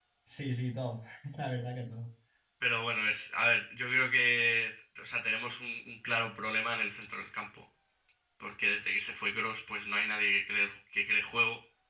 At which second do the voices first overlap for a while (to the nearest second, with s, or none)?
none